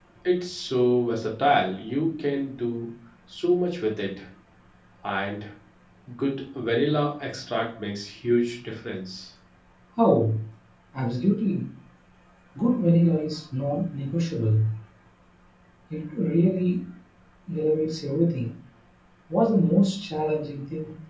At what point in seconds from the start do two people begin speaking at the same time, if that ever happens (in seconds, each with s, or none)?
none